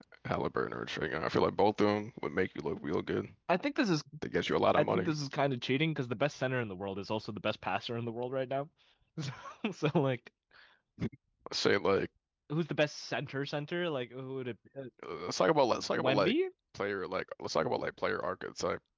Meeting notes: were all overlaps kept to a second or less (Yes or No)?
Yes